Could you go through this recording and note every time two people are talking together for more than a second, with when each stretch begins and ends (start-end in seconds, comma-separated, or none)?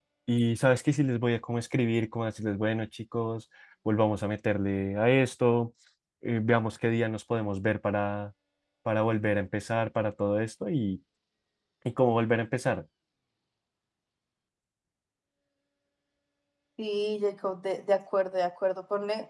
none